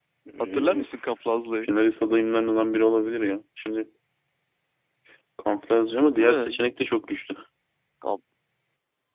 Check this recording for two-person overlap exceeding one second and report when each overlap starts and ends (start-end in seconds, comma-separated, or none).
none